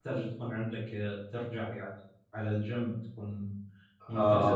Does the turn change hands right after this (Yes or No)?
Yes